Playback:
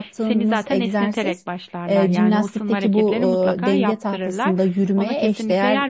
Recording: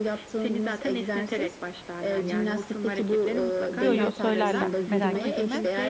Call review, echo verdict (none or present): present